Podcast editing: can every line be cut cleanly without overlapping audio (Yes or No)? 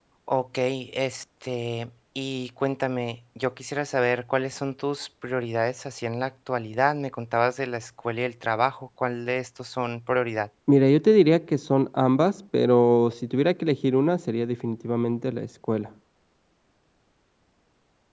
Yes